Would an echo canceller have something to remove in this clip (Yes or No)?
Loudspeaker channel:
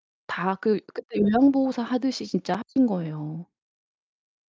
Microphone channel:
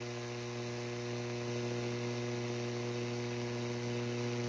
No